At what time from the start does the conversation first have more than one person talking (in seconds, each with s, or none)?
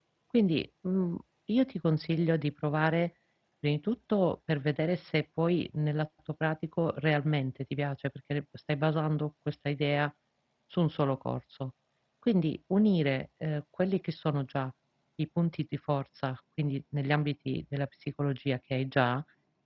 none